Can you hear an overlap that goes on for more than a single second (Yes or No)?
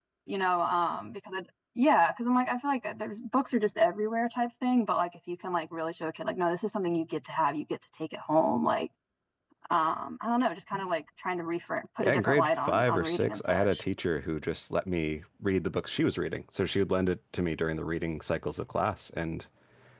Yes